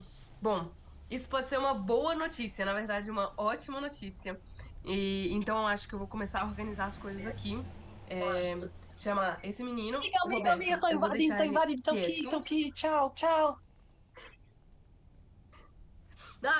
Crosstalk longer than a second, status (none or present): present